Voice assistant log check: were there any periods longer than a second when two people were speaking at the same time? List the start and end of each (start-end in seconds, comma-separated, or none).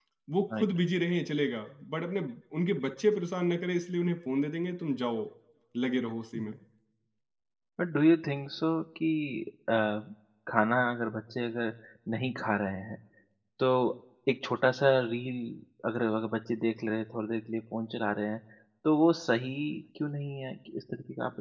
none